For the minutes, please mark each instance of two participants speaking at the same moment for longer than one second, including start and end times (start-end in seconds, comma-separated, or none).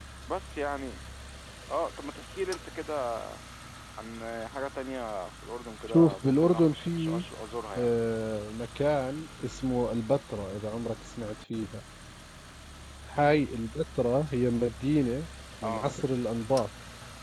5.9-7.2